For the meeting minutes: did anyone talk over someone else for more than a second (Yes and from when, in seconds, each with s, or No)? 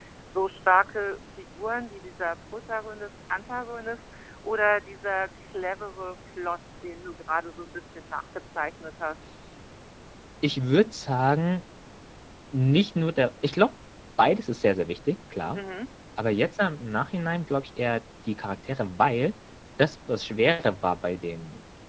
No